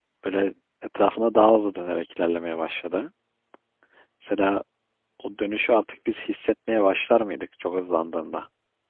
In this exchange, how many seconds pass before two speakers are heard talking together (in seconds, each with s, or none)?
none